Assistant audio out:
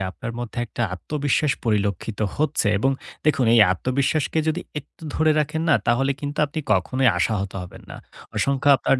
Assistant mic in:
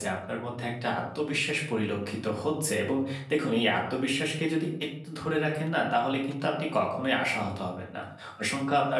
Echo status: present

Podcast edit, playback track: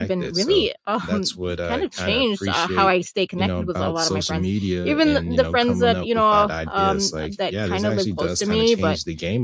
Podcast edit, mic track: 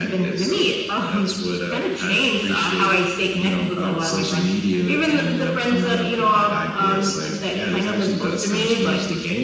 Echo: present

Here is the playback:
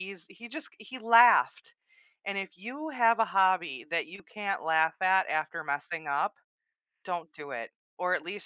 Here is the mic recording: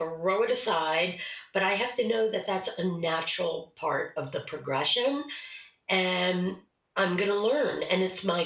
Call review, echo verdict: none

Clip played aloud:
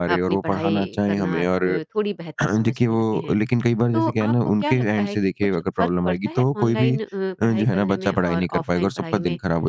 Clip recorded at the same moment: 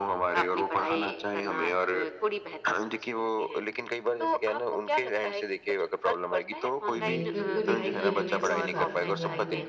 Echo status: present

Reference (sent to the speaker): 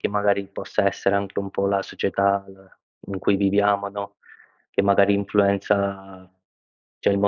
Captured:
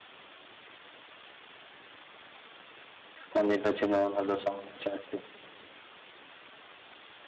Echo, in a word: none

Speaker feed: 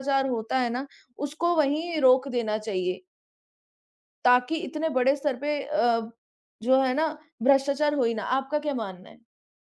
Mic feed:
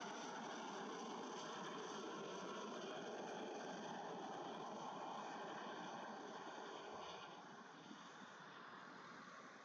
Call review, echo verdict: none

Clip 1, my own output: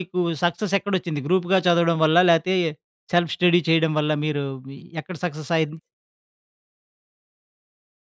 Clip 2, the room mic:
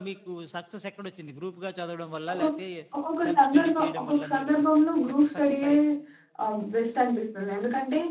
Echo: present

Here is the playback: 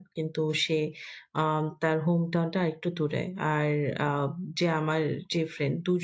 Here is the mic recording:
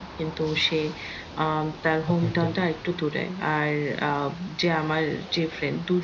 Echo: present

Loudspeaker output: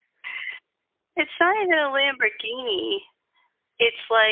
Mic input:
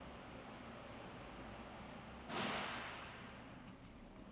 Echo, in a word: none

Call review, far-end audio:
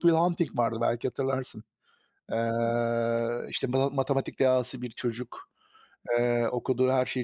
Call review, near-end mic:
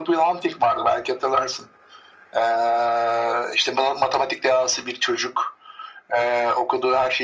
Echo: present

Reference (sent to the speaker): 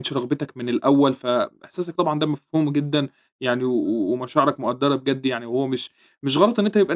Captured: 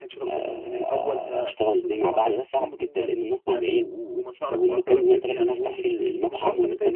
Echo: present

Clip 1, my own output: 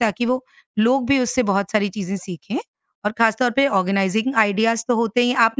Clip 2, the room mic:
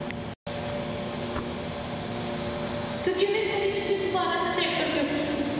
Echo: none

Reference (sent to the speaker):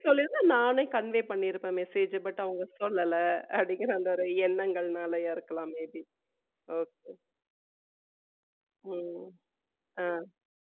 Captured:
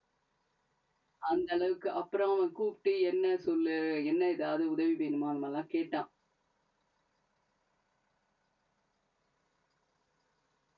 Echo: none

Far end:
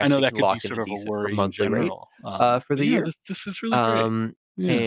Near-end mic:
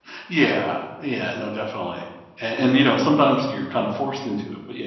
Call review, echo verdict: none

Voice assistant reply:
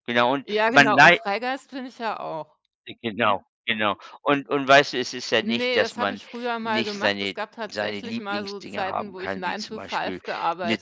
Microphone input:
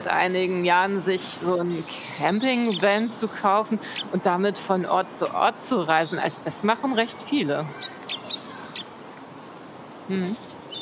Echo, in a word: none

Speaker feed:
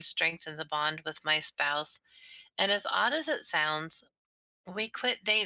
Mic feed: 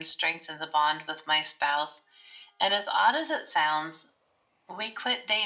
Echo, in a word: present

